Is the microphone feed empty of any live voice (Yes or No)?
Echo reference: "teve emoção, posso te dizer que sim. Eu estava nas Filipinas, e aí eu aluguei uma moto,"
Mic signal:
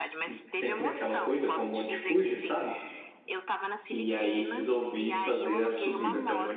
No